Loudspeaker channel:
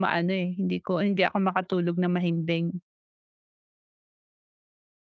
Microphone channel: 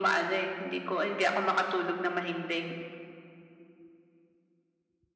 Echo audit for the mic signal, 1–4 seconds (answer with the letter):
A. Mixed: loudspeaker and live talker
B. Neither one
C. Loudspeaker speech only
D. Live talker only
C